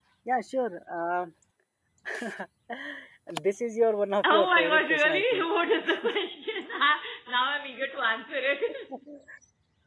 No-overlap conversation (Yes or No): No